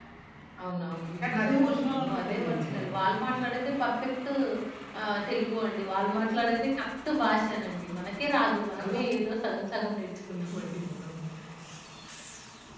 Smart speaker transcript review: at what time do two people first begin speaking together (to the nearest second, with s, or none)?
1 s